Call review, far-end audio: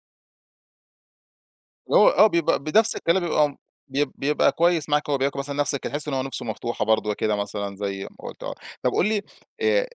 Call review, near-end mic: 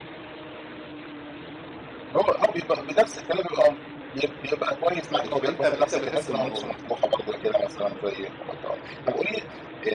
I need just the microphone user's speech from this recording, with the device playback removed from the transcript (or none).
آآ بت أنت ب أنت بتحس بالموضوع ده؟